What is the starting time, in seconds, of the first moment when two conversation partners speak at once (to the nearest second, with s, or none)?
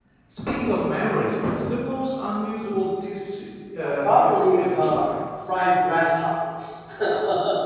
4 s